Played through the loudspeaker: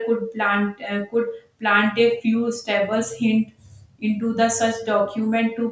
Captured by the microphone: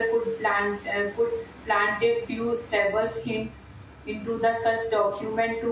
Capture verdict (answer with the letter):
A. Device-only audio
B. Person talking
A